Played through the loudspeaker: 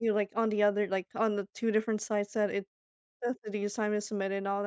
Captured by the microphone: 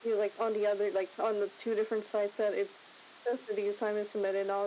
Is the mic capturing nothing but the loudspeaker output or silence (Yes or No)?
Yes